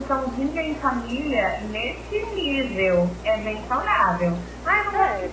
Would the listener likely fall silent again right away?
Yes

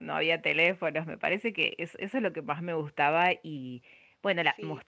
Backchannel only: Yes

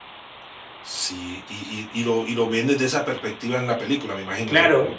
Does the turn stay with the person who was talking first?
No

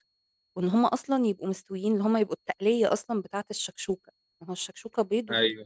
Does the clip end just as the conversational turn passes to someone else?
No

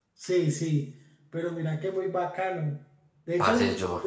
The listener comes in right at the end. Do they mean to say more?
No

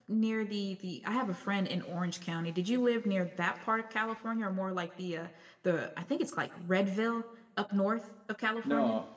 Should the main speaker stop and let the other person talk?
Yes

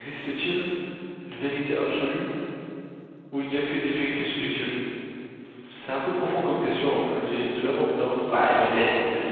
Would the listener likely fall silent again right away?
No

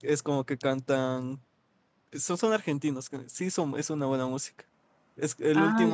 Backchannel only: Yes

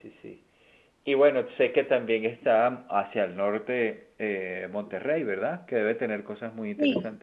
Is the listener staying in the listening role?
No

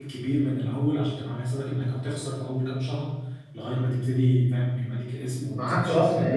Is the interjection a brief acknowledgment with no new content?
No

